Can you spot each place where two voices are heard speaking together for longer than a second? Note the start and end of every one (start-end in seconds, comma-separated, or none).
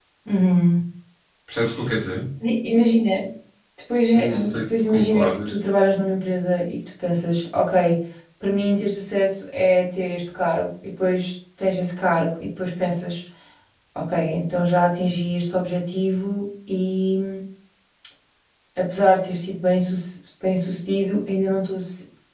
4.1-5.6